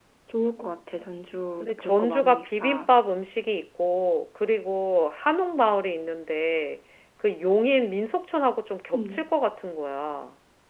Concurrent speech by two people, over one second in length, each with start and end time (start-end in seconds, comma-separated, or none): 1.6-2.9